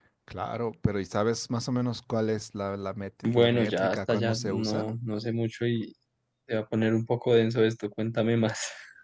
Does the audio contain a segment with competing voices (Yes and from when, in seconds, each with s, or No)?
Yes, from 3.2 s